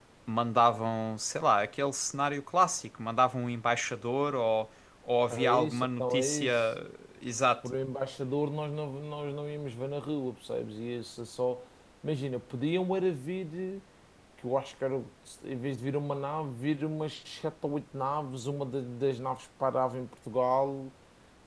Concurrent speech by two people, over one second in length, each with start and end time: 5.3-6.5

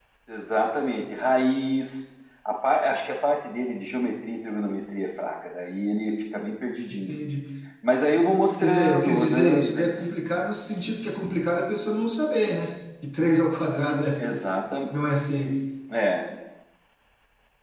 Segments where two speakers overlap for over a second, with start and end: 8.6-9.9

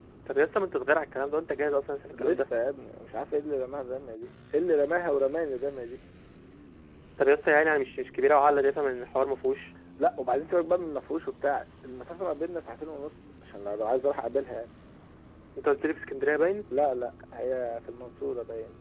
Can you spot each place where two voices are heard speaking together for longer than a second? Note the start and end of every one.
none

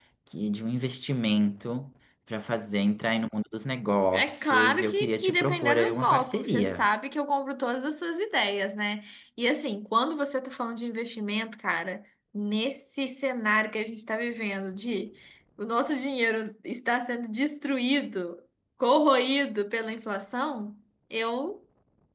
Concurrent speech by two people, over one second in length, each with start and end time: 4.1-6.9

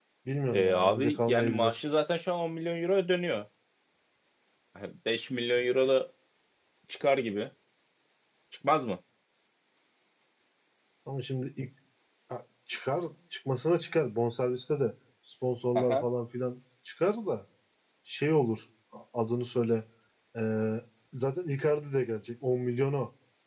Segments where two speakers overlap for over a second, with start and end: 0.5-1.8

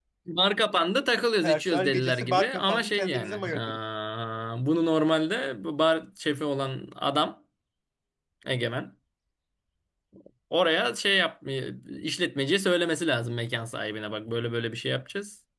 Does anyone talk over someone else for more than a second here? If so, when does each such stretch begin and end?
1.4-3.8

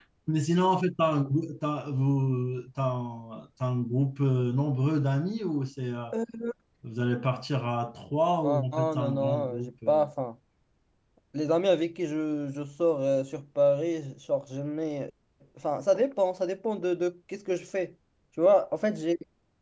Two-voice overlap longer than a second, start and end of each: 8.4-10.0

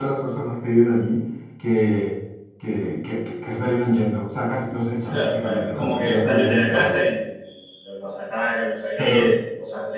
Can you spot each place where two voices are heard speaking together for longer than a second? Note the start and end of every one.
5.0-7.0

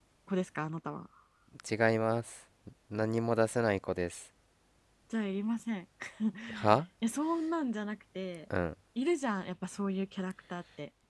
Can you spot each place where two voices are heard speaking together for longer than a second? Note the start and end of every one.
none

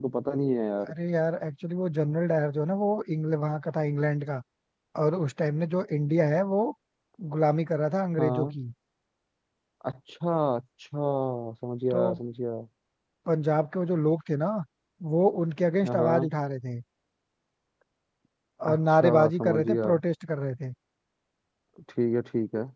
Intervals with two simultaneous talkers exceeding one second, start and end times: 18.7-19.9

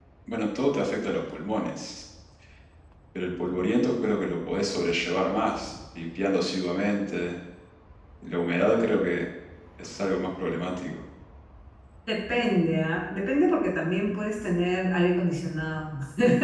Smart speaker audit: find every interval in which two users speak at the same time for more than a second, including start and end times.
none

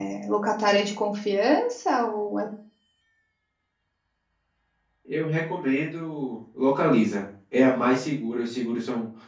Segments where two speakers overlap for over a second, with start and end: none

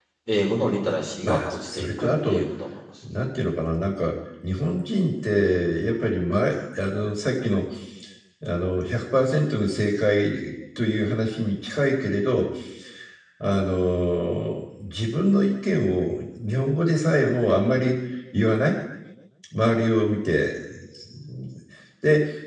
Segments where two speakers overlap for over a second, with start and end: 1.2-2.5

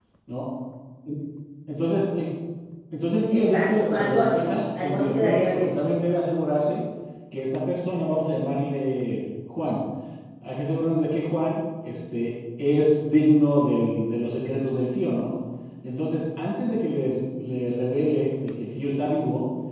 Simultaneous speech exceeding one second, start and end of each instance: 3.3-5.7

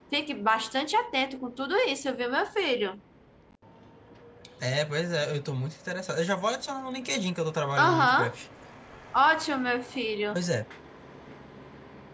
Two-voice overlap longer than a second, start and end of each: none

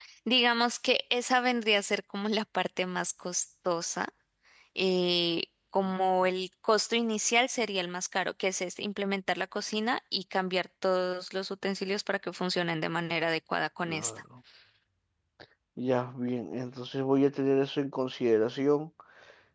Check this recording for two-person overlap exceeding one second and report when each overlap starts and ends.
none

